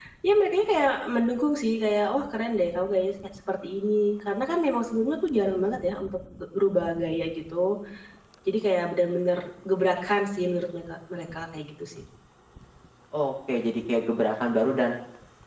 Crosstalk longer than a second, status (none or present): none